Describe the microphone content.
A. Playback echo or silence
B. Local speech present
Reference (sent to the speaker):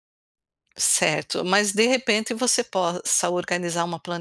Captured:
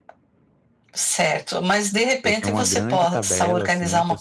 B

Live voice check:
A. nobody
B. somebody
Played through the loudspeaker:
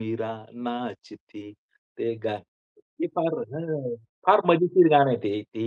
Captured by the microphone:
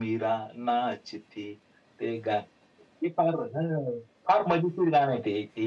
A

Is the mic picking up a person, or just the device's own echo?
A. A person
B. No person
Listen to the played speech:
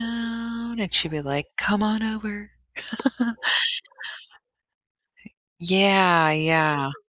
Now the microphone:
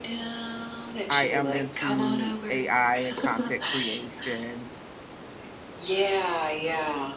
A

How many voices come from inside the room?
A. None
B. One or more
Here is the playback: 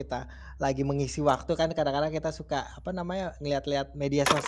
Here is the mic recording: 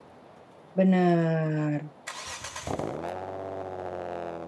B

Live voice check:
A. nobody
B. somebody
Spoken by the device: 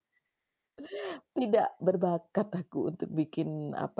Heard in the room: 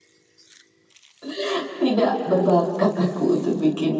A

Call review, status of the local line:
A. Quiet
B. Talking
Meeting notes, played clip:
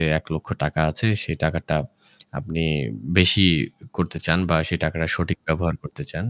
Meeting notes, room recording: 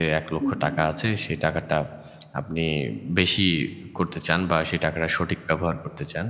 B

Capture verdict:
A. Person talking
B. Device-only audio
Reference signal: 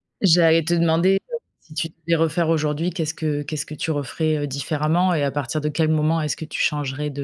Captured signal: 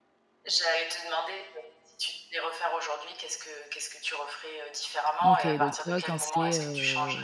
A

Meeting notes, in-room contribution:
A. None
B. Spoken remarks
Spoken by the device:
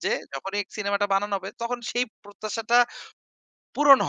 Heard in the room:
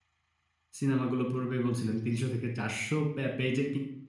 B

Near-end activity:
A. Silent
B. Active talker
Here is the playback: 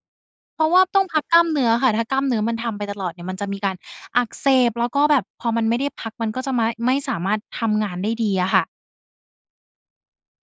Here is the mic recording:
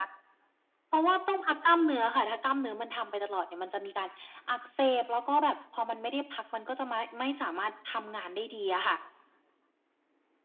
A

